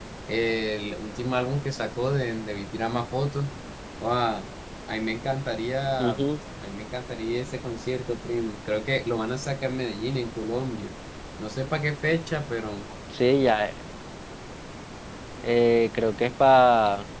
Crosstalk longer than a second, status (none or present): none